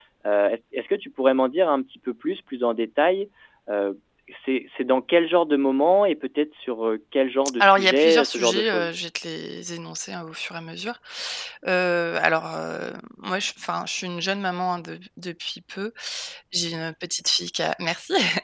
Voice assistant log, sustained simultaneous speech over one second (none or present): present